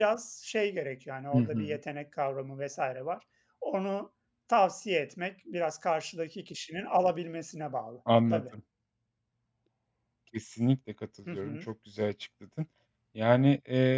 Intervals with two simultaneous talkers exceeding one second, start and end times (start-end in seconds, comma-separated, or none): none